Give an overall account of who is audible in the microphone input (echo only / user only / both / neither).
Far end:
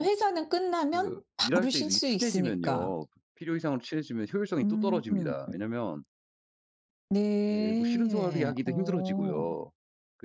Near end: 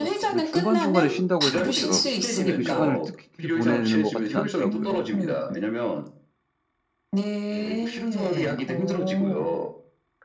both